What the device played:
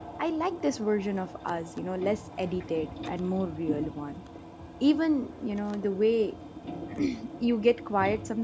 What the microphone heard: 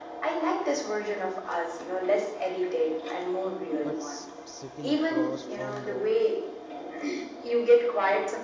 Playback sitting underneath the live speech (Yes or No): No